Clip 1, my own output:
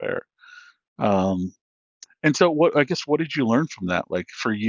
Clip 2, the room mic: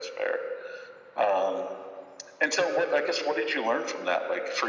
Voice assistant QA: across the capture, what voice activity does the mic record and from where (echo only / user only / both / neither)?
echo only